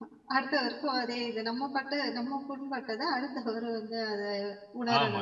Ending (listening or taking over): taking over